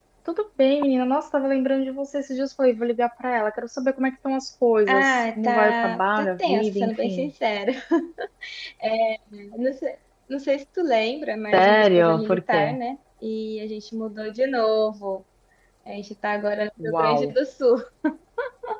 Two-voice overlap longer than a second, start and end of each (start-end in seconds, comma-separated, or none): 4.9-7.3, 11.5-12.8